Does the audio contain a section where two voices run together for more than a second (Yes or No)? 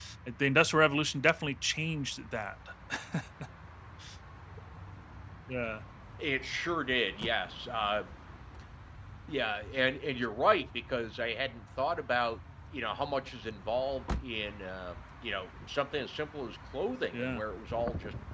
No